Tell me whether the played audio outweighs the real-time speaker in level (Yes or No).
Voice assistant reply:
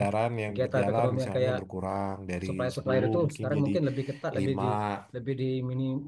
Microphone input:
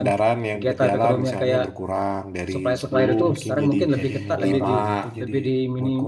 Yes